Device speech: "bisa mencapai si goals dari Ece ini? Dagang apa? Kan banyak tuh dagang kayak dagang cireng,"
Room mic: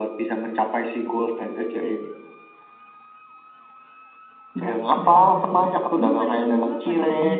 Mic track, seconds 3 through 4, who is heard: neither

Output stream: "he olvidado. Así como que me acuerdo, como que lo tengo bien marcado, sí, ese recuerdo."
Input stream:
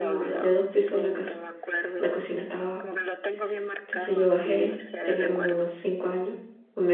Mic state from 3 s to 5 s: both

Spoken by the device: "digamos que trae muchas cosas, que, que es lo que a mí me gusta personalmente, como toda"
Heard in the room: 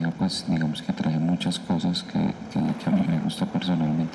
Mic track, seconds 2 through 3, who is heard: echo only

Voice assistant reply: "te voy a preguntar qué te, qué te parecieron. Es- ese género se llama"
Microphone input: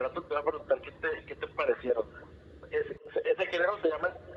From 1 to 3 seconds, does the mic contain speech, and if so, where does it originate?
echo only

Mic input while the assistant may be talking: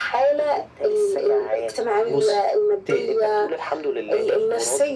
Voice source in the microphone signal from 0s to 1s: echo only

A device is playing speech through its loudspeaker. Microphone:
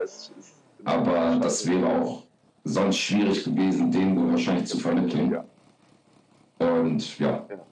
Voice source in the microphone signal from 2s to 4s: echo only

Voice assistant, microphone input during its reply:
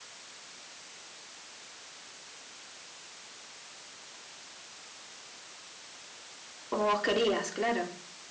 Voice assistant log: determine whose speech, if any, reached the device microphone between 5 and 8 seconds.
user only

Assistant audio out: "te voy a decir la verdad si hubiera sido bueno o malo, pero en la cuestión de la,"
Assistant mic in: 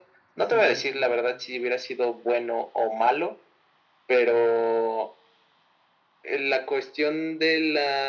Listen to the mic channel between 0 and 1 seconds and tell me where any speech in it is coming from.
both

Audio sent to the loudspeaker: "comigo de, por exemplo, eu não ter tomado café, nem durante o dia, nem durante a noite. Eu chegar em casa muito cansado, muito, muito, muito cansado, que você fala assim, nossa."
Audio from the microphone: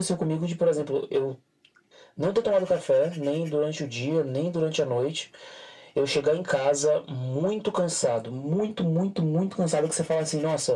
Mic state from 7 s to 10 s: echo only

